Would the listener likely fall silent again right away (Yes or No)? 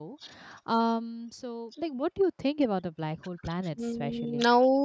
No